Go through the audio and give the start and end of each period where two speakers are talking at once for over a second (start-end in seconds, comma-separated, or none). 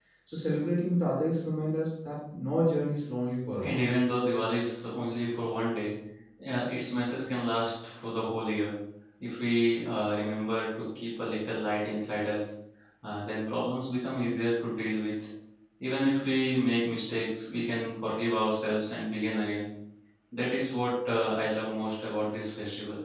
none